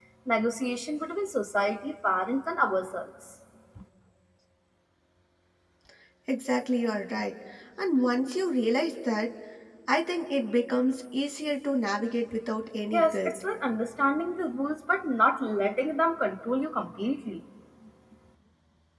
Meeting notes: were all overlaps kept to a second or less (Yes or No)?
Yes